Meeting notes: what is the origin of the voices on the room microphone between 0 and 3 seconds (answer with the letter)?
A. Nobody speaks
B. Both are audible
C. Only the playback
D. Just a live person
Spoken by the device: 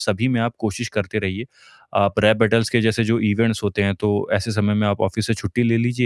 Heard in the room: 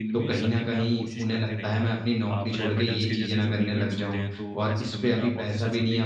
B